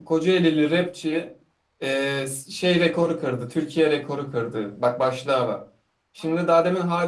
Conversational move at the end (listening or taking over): listening